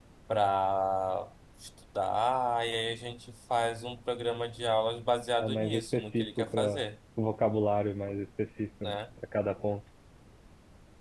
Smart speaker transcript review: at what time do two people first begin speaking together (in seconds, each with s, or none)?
5.4 s